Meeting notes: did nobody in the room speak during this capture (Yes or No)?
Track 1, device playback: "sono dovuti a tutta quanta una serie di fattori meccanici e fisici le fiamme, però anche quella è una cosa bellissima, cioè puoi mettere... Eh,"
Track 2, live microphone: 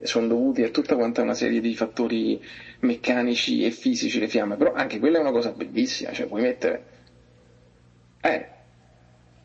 Yes